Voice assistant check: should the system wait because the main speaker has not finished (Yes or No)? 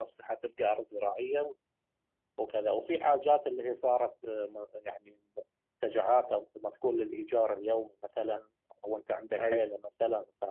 Yes